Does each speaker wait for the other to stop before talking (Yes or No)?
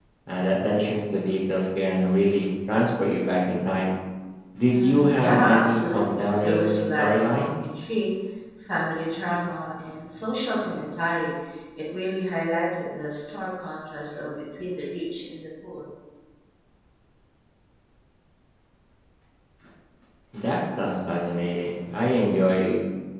No